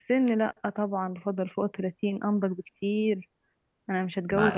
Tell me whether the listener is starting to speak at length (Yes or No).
Yes